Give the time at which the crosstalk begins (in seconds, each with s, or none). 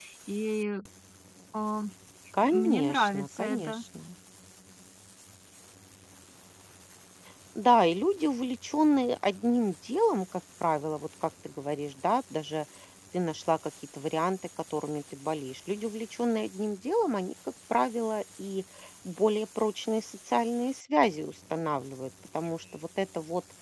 2.5 s